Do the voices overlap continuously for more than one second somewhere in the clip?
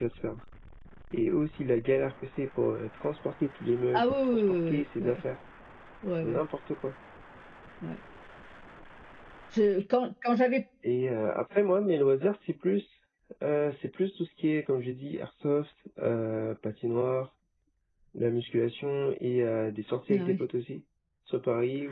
Yes, from 3.9 s

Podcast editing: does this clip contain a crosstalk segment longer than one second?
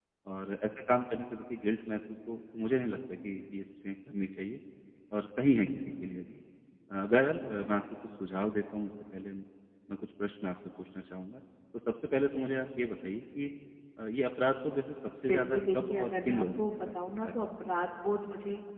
Yes, from 15.3 s

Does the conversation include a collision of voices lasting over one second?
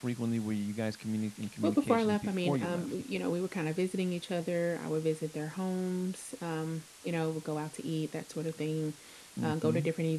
Yes, from 1.6 s

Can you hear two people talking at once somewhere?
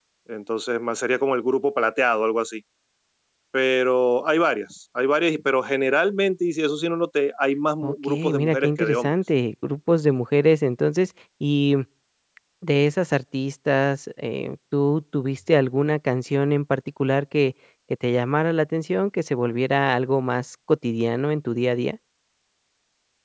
Yes, from 7.8 s

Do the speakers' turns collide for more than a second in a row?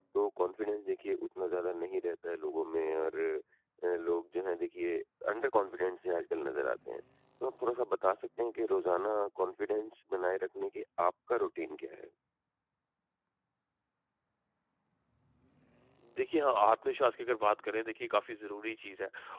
No

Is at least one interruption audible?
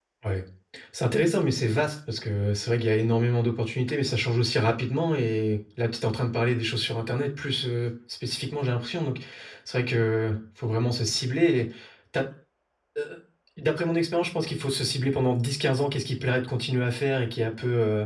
No

